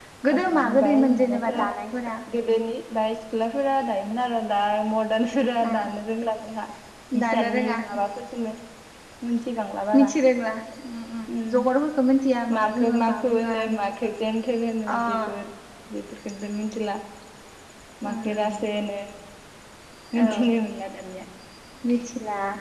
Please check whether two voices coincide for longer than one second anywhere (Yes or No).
Yes